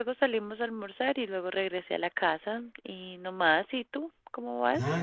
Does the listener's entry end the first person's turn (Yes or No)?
Yes